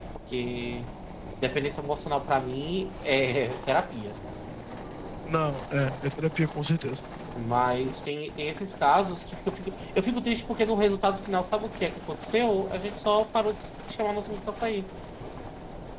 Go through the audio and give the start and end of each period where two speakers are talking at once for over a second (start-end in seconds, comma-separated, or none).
none